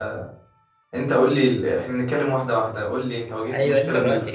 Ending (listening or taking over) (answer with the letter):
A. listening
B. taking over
B